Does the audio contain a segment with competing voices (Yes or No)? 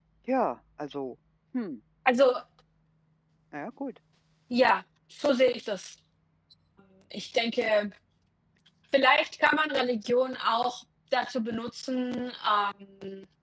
No